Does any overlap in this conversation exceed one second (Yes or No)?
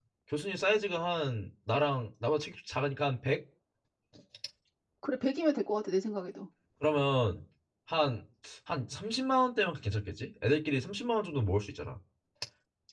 No